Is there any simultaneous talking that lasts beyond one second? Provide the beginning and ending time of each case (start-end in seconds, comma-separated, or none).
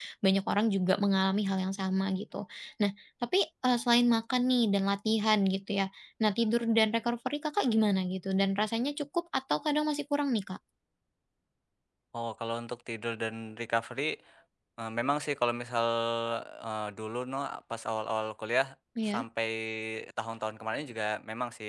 none